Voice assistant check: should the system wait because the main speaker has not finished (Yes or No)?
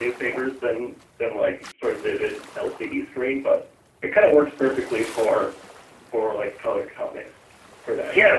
No